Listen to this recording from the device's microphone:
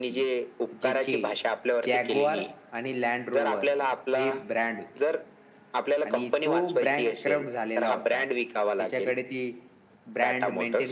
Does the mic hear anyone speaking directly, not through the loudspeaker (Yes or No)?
Yes